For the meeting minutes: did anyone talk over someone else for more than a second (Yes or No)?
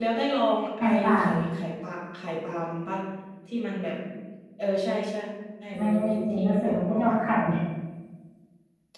Yes